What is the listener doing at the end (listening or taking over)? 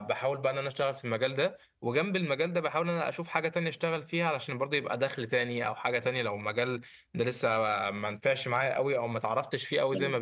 listening